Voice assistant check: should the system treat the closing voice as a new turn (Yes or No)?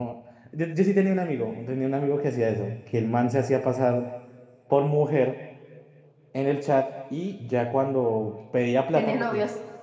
No